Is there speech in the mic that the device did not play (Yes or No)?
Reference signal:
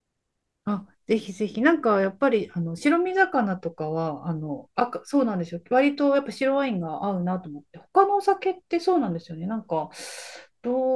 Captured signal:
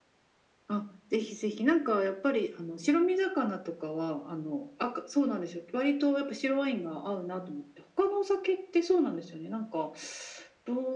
No